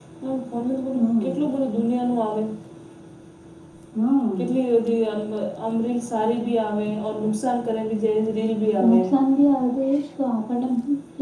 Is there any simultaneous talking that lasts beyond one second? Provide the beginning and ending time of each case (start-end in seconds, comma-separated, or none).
none